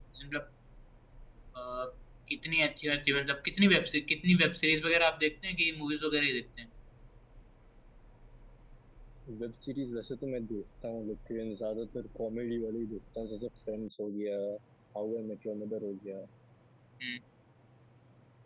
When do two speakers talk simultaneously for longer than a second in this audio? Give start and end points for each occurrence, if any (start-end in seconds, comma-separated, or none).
none